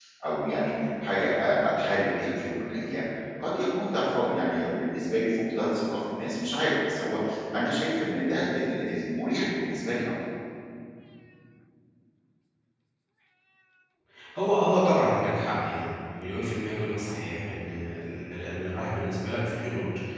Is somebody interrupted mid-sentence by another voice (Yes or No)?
No